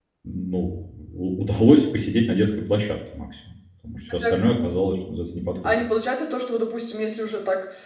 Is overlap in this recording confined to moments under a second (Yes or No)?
Yes